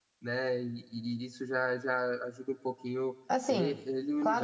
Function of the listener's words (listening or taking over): taking over